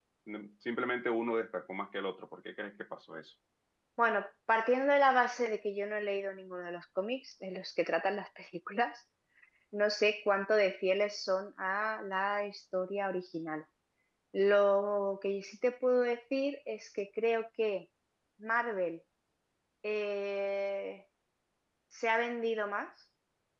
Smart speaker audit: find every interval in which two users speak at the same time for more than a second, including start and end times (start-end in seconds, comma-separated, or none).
none